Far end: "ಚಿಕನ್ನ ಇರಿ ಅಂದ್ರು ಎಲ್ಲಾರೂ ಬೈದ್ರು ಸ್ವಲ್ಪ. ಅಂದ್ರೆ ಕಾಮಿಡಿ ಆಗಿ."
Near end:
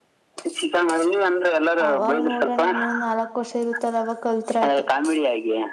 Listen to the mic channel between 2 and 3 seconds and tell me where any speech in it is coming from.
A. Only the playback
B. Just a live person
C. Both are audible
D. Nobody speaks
C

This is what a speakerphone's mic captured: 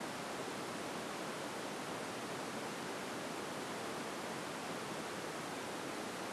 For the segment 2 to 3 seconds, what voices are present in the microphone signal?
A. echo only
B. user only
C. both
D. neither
D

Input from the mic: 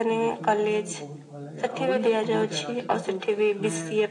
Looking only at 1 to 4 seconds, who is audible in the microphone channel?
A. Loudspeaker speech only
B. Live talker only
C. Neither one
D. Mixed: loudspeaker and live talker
D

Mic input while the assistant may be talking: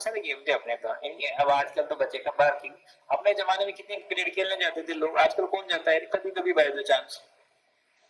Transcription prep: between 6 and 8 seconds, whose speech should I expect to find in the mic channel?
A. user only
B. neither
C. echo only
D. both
C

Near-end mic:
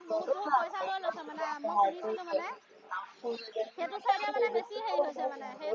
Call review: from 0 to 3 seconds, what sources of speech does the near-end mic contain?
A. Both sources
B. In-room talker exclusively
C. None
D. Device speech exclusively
A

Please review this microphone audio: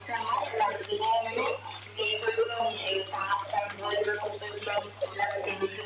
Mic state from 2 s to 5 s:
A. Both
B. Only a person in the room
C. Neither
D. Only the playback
D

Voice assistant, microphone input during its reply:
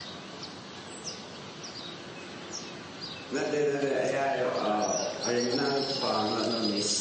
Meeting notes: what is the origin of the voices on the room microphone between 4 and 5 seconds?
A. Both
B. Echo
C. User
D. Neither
C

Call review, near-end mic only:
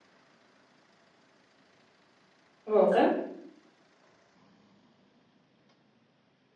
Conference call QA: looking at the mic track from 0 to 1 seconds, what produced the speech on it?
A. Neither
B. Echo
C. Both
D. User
A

